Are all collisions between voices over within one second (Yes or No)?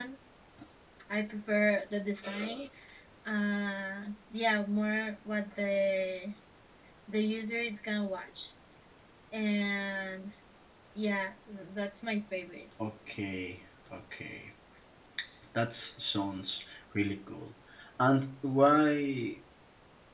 Yes